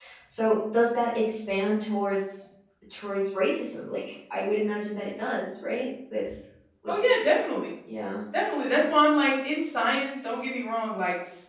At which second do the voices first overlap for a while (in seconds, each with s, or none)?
none